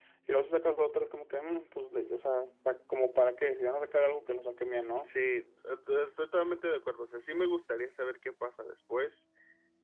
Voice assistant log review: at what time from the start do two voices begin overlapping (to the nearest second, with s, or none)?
none